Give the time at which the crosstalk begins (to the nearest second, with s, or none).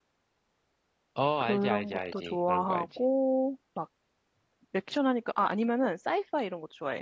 1 s